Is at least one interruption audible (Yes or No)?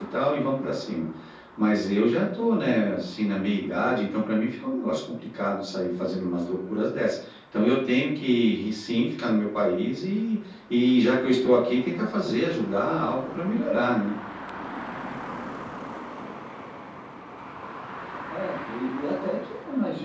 No